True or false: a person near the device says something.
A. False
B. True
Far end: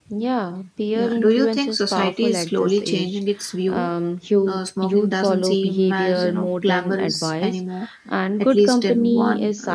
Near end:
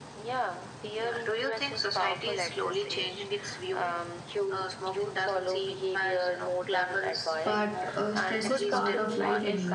B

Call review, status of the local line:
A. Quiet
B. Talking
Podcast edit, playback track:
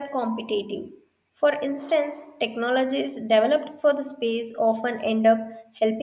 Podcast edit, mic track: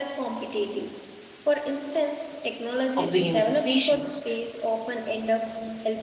B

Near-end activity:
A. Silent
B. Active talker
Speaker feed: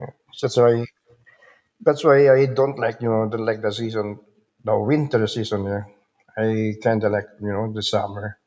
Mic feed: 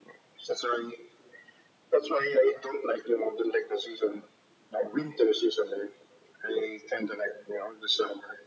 A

